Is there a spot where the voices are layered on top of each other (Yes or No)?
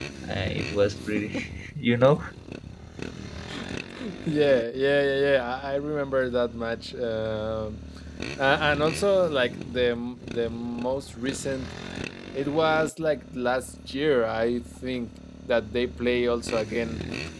No